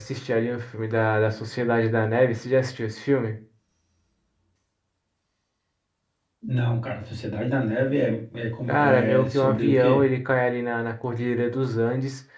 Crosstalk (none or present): present